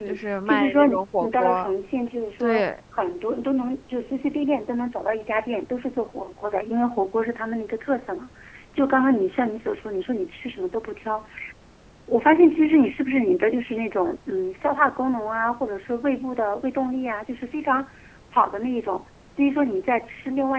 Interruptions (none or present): present